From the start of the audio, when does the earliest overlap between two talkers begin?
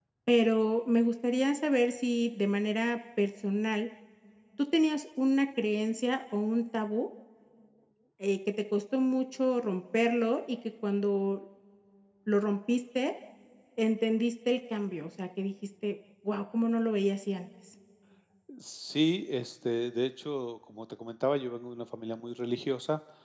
none

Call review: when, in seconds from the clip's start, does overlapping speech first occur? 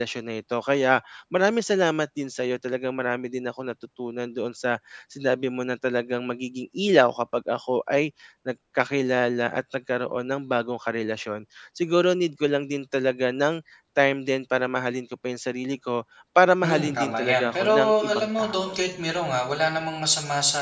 17 s

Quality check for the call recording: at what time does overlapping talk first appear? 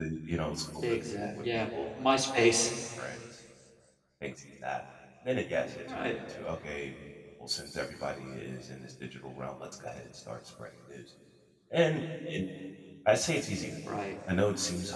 1 s

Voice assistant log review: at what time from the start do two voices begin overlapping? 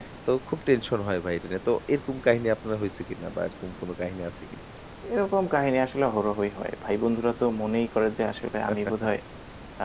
none

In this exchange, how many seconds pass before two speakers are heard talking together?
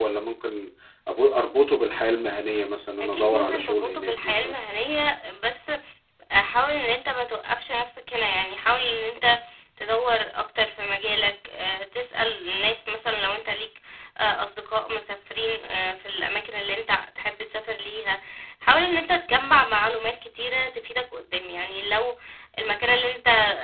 3 s

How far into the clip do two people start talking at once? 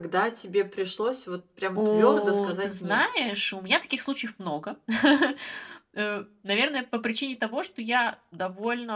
2 s

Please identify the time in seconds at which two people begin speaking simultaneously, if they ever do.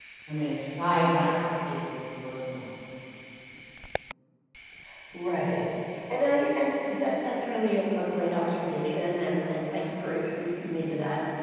none

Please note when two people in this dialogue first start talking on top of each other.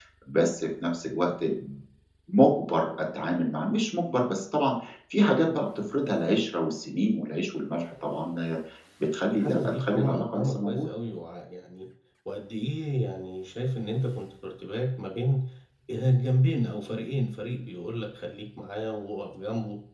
9 s

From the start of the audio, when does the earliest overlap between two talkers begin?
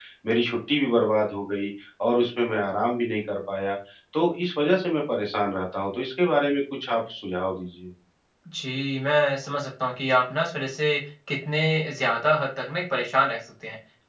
none

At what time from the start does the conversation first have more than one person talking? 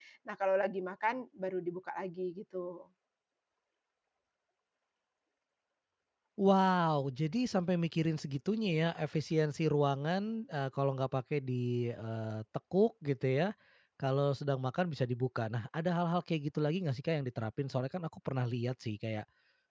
none

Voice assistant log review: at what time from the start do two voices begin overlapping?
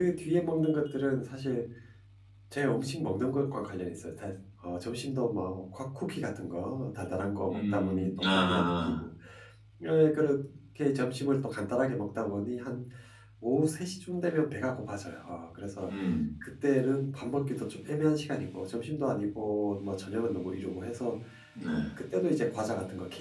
8 s

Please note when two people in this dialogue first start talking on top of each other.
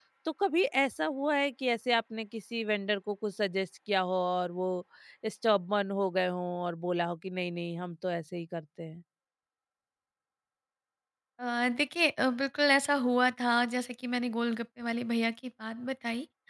none

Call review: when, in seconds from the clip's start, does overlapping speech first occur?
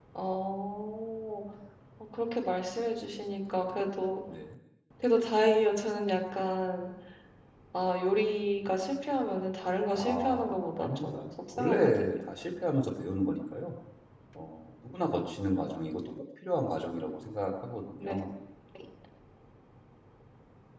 10 s

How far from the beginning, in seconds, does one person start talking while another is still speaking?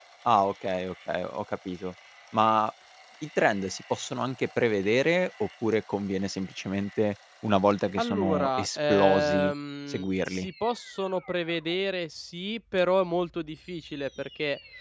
8 s

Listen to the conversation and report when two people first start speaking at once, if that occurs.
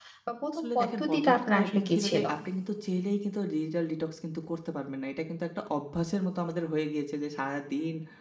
1 s

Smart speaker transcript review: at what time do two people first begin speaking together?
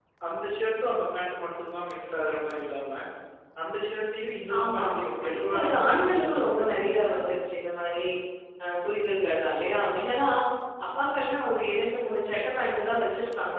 4 s

